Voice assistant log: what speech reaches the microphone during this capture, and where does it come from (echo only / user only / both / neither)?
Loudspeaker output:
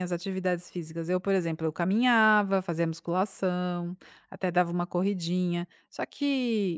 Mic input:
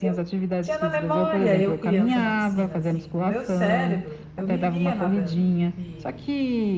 both